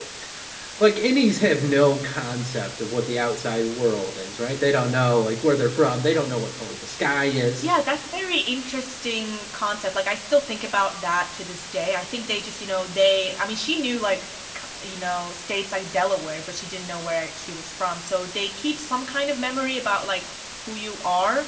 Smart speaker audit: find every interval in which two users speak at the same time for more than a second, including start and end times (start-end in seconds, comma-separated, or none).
none